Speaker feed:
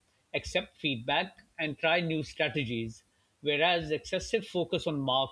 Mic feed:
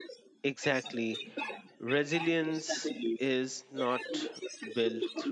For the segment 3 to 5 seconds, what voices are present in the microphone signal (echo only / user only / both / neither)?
both